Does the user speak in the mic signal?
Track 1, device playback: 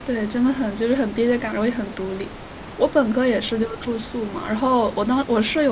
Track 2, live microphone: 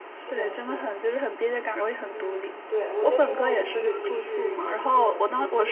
Yes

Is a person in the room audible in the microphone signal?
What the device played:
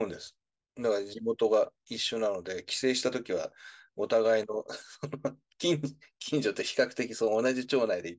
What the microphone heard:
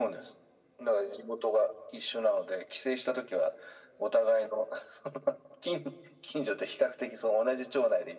No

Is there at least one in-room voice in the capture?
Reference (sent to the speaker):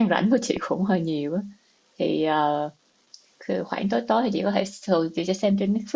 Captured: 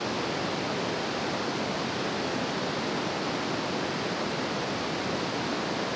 No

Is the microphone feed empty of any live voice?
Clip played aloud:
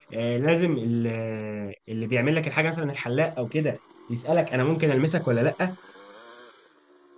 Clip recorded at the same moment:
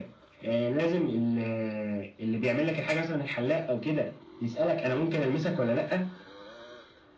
Yes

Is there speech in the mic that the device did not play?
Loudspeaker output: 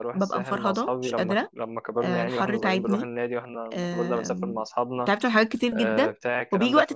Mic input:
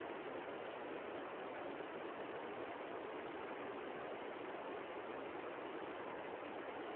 No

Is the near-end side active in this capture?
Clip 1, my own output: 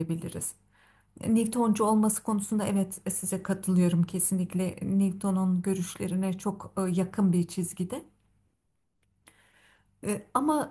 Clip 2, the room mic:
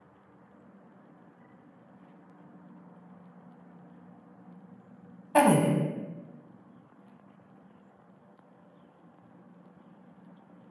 Yes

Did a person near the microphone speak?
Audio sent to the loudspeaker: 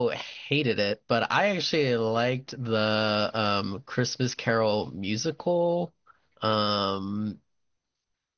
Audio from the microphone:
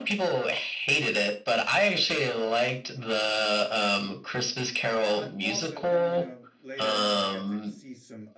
Yes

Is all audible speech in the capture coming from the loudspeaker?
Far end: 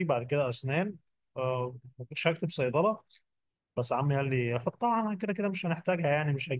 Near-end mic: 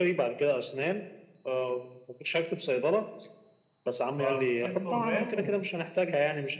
No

